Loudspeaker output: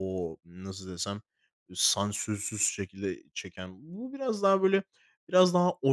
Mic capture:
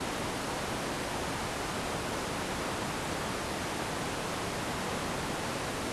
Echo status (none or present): none